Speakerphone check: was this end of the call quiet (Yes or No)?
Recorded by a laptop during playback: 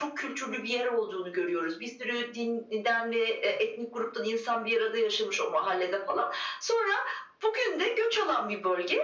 Yes